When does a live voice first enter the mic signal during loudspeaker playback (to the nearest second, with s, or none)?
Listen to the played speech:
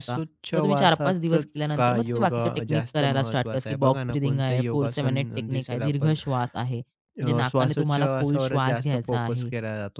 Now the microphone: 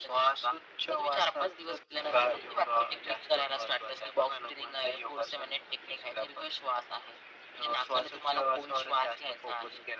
none